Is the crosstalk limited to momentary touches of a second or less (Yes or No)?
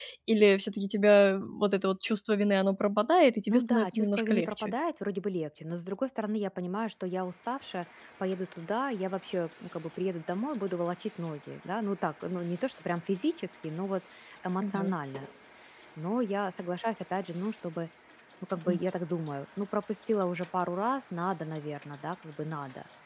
No